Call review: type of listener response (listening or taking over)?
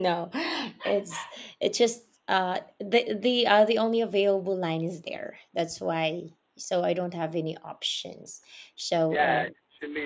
taking over